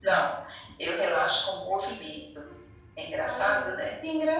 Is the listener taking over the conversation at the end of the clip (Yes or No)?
Yes